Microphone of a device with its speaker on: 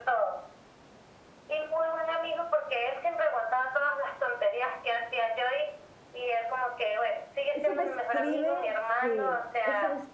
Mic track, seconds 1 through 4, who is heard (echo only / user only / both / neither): echo only